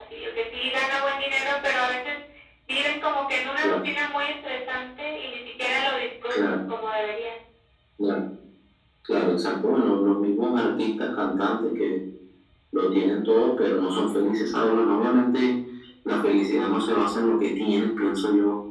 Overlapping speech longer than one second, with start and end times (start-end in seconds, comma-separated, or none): none